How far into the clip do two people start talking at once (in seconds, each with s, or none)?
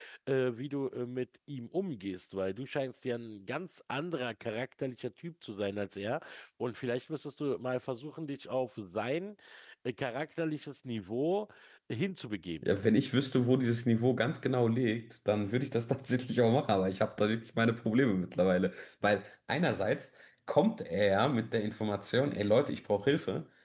none